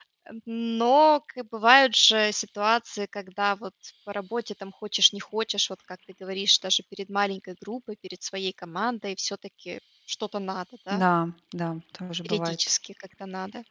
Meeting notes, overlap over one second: none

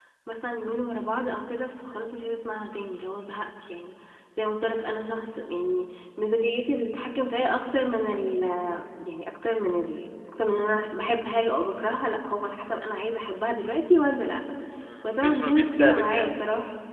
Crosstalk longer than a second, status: present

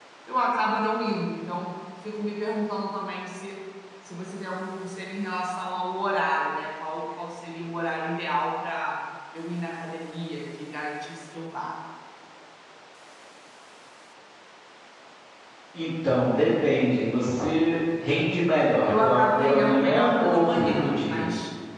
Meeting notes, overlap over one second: present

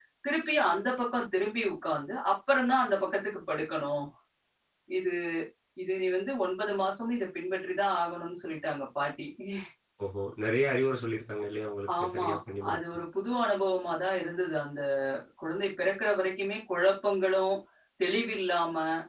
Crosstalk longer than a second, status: none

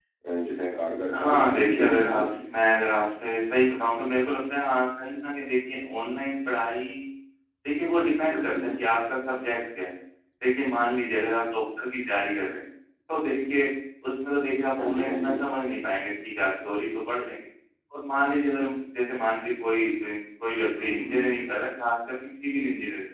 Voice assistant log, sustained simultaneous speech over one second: present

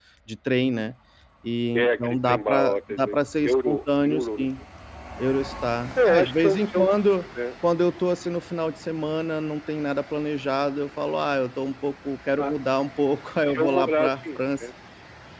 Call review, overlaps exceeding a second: present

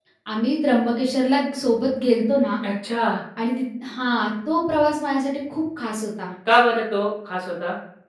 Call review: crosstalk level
none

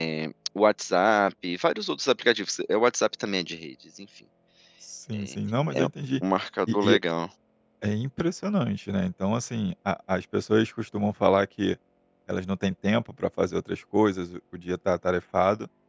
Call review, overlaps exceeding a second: none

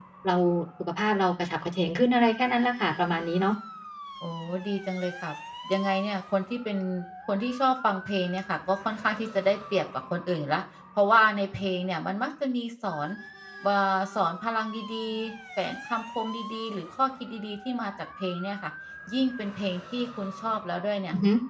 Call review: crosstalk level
none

